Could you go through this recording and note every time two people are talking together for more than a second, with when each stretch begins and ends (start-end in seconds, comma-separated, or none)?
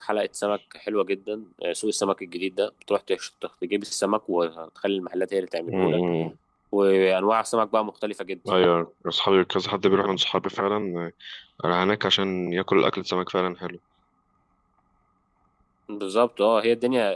none